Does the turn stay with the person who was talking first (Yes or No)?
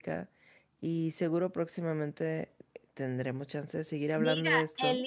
No